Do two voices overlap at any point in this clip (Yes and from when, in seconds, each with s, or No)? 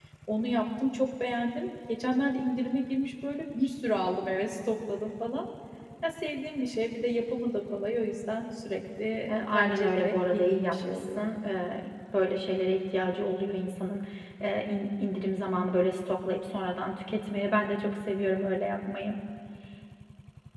Yes, from 9.3 s